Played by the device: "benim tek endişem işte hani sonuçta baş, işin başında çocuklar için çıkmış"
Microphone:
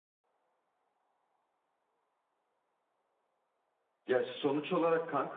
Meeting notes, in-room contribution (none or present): present